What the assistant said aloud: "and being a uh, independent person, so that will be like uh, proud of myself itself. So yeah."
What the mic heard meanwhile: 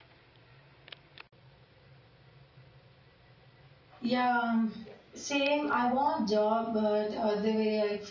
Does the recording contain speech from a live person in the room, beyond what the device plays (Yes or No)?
Yes